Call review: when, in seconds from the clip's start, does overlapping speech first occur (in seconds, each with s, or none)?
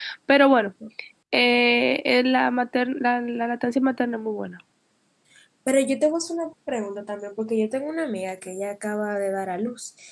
none